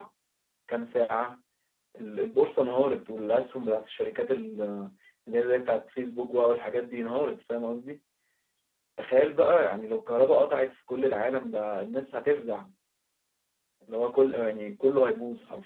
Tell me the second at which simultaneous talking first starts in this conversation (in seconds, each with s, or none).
none